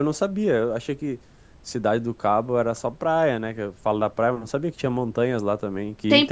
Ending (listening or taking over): taking over